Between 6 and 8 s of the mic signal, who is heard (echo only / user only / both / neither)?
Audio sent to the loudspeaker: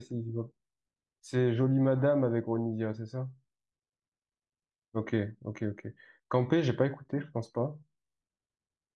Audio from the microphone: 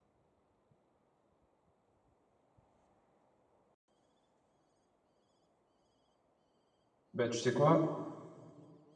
user only